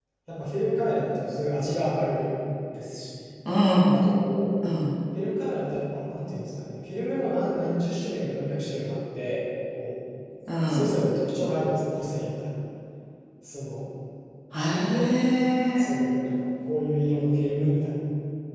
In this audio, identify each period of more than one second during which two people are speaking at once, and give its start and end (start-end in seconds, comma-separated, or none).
none